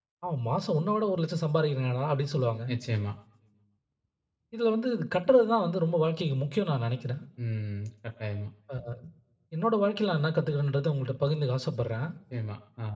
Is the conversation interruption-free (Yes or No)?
Yes